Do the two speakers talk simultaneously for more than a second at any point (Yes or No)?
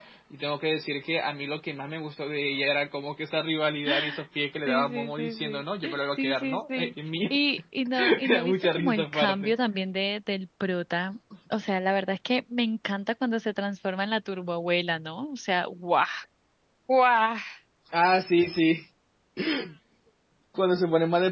Yes